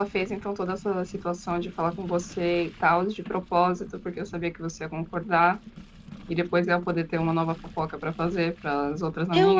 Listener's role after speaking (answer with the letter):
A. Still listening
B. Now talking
B